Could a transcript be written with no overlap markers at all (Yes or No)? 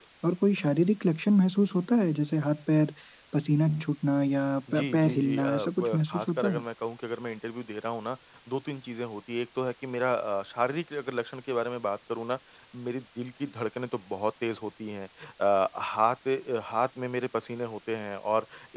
No